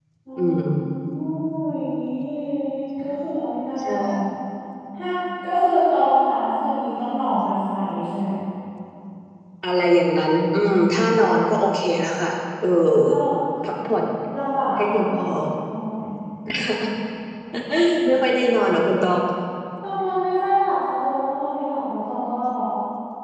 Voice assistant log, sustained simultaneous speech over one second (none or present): none